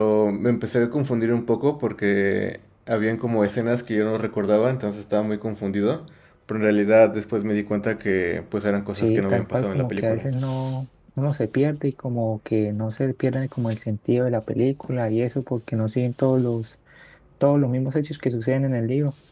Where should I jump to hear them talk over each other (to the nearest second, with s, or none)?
9 s